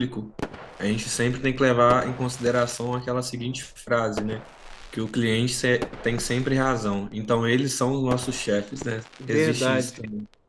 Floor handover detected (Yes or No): Yes